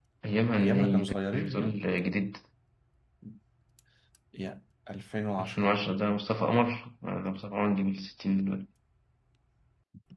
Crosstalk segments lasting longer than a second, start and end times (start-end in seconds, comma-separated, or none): 0.6-1.8